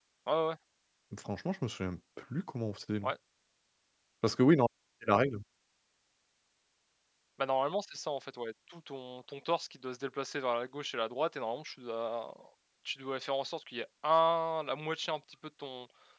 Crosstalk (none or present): none